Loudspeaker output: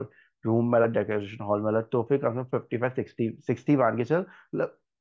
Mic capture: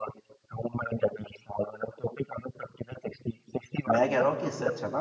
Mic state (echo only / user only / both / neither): both